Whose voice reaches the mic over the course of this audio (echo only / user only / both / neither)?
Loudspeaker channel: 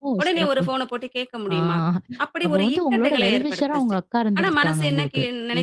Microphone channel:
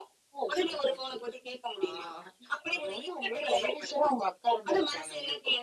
echo only